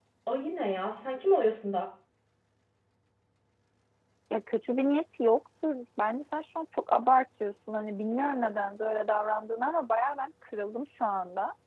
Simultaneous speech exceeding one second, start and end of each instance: none

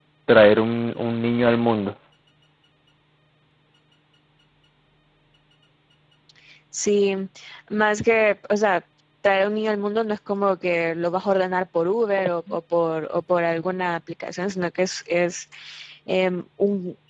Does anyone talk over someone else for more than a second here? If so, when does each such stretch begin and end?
none

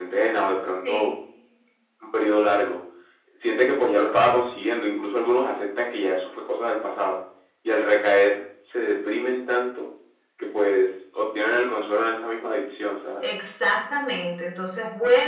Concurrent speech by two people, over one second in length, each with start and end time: none

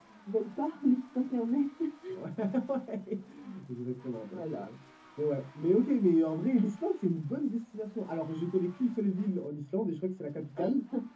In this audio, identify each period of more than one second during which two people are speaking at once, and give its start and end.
none

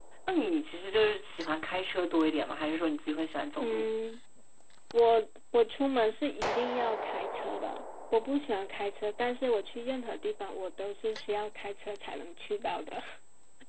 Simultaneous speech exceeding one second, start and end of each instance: none

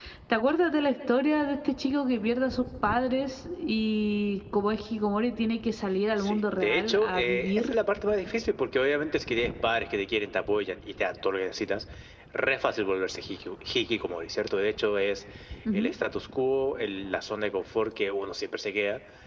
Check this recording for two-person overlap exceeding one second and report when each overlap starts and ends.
6.2-7.7

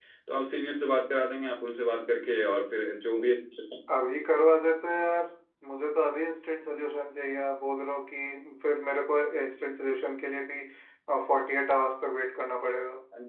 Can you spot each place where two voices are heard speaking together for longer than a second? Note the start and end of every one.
none

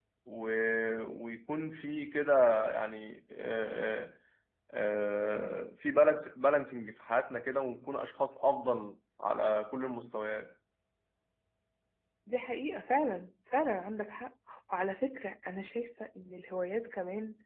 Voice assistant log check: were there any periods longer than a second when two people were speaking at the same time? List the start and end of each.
none

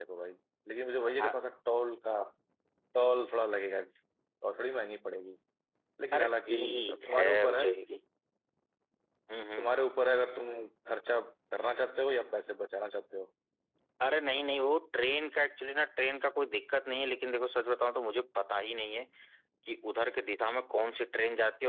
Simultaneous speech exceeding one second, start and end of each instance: 6.1-7.6

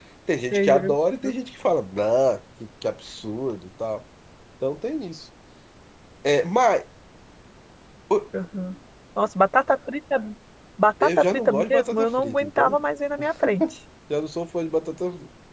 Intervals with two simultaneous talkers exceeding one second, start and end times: 11.0-12.8

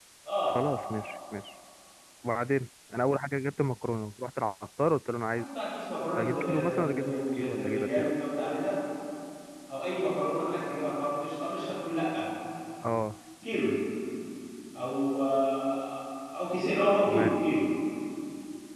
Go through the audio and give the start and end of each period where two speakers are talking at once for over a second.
6.2-8.1

